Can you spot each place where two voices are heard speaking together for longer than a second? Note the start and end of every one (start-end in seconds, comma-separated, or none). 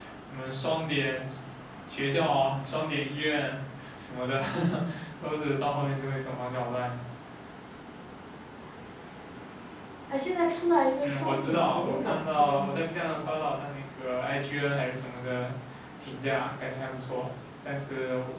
11.0-13.3